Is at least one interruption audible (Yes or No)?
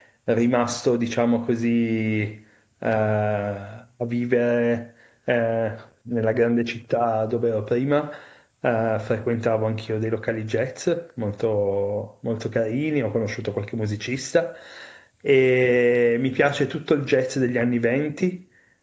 No